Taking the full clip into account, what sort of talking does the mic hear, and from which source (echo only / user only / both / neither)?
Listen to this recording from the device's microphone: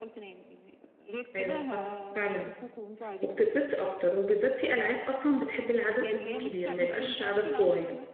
both